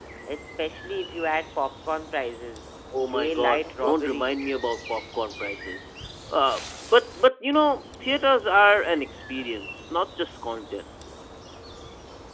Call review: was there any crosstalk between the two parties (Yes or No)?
Yes